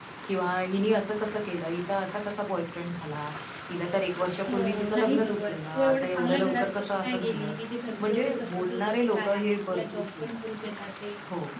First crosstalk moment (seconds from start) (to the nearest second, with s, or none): 4 s